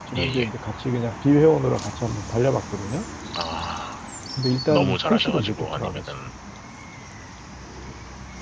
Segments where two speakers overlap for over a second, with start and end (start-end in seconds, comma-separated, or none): 4.7-6.1